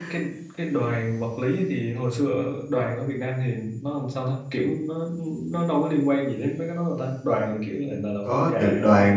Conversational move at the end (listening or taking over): taking over